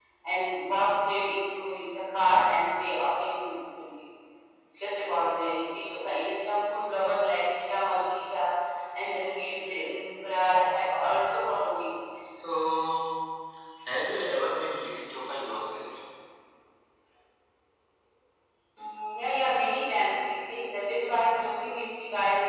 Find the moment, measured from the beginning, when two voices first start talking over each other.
none

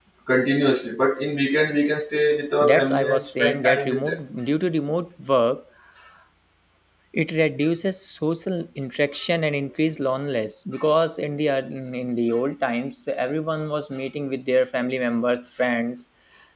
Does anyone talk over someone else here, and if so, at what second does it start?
3 s

